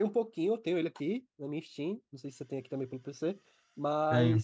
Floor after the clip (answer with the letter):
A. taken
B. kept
B